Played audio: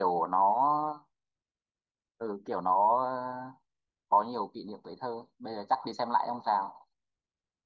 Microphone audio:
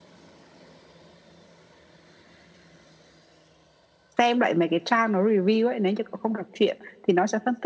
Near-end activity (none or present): present